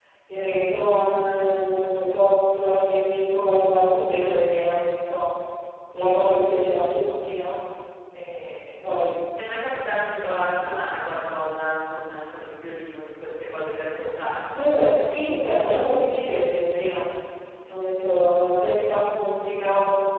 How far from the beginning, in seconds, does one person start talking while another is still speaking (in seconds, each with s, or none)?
none